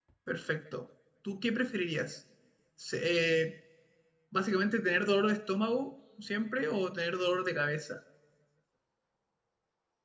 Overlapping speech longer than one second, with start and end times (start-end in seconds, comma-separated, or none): none